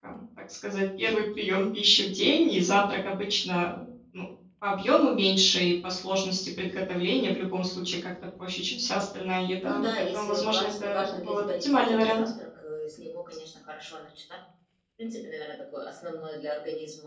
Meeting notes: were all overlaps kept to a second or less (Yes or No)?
No